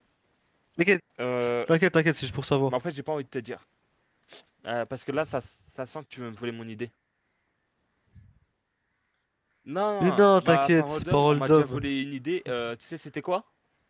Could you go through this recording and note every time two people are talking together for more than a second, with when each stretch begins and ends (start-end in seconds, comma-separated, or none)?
10.0-11.9